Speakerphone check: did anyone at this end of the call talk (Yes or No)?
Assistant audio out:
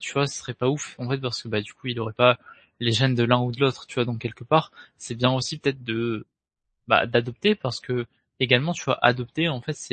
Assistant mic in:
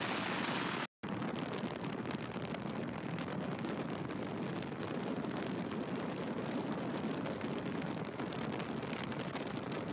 No